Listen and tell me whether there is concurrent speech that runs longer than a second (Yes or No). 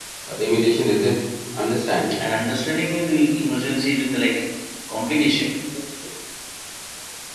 No